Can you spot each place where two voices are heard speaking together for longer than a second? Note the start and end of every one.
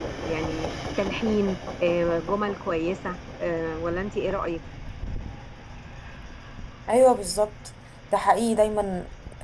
none

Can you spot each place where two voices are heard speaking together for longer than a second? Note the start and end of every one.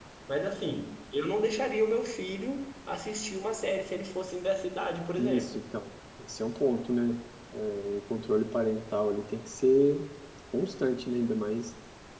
none

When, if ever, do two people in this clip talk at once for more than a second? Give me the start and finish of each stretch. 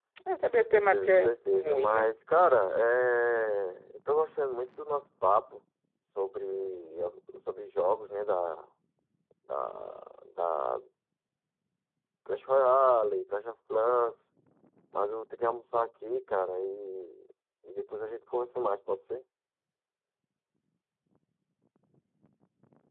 0.6-2.1

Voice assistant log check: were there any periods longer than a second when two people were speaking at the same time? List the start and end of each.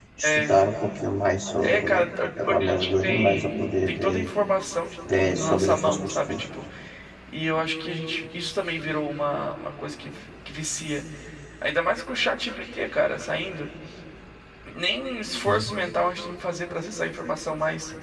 2.4-4.3, 5.1-6.4

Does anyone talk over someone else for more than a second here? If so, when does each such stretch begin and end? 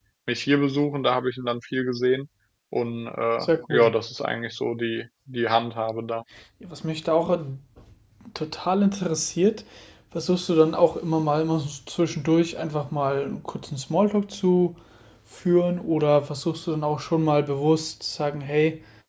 none

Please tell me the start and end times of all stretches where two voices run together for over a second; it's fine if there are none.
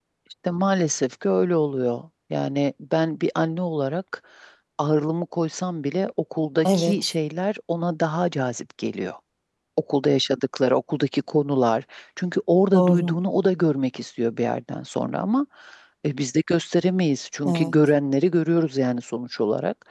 none

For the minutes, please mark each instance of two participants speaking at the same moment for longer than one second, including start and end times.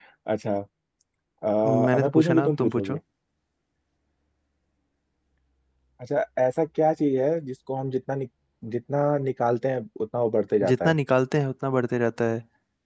1.6-3.0

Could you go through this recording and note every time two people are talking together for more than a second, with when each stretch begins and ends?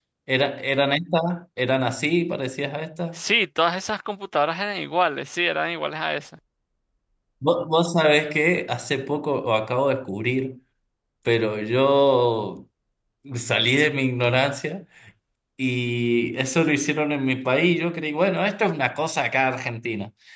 none

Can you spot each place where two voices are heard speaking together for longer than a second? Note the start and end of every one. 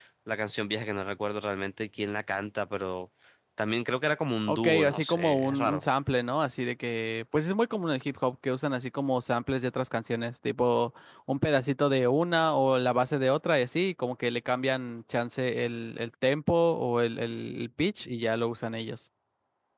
4.5-5.8

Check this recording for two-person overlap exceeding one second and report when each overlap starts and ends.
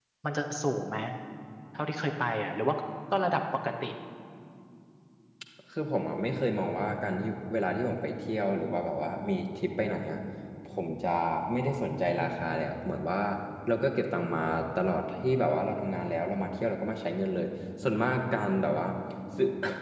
none

